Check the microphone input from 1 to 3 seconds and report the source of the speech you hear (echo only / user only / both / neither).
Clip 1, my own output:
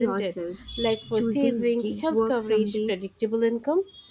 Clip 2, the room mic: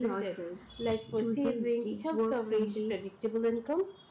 echo only